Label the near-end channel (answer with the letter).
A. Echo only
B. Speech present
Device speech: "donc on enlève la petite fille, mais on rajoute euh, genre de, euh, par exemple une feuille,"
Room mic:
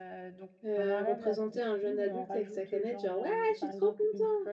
B